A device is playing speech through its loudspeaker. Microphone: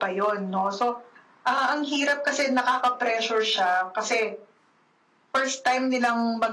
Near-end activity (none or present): none